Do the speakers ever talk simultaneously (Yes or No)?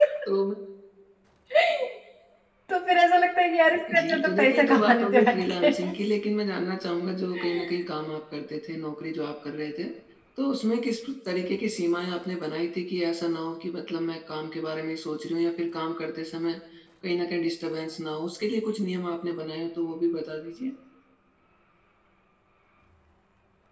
Yes